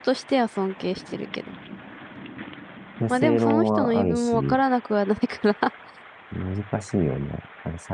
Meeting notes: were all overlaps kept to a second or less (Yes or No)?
No